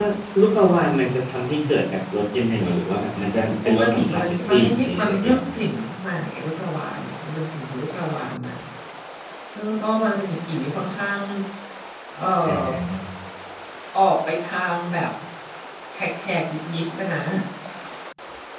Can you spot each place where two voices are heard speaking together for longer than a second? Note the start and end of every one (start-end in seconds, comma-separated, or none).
3.6-5.4